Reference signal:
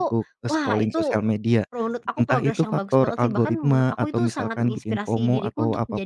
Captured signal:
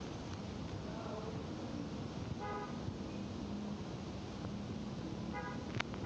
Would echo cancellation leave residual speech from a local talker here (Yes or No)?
No